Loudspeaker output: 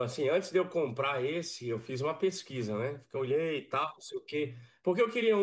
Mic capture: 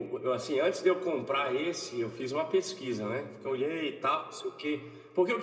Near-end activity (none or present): none